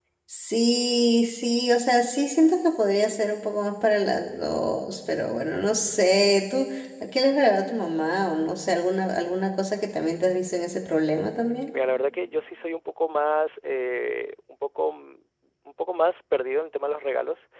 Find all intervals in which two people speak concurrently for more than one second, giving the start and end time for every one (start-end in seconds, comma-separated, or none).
none